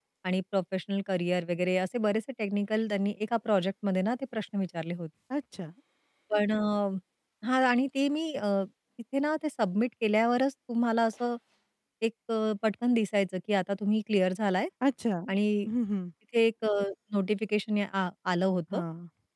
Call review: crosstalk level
none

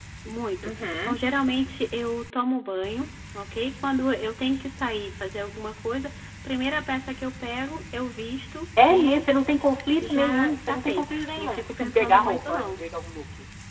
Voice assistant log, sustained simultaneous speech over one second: present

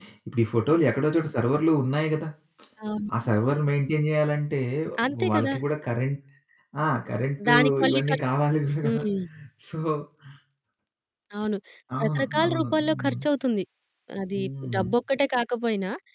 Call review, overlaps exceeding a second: present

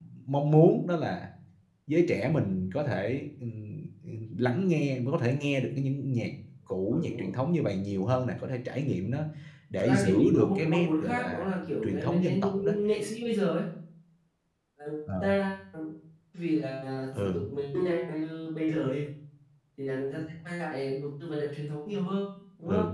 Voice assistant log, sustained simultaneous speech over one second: present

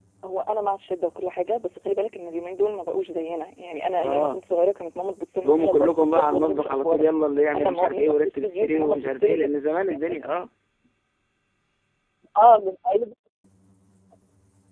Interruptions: present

